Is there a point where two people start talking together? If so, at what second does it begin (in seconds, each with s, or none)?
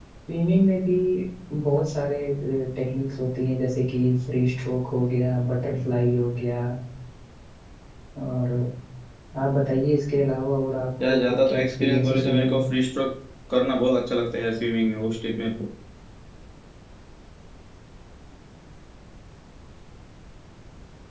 11.0 s